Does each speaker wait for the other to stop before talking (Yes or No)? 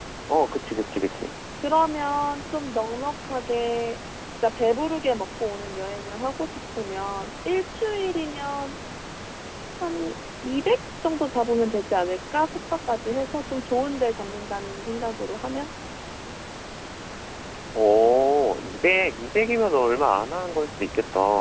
Yes